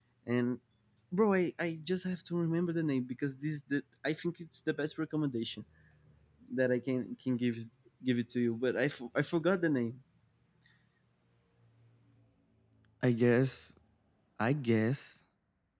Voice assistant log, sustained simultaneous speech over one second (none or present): none